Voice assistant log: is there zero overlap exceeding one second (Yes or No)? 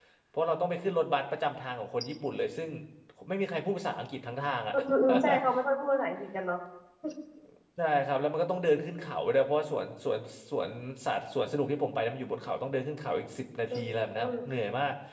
Yes